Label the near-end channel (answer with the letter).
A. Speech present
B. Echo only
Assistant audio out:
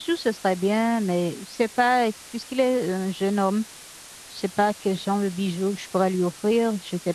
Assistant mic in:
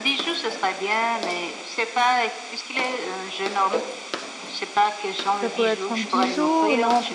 A